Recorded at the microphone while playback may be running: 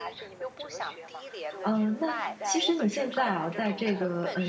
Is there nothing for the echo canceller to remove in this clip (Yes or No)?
No